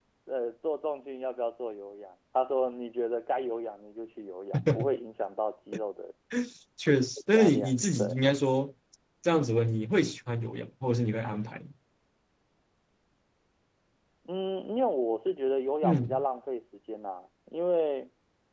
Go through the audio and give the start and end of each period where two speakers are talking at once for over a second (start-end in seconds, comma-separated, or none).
6.9-8.2